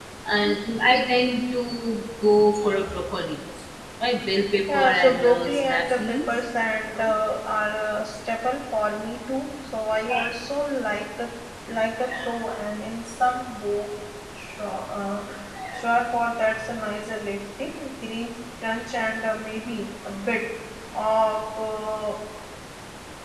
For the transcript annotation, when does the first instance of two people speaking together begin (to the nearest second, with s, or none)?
5 s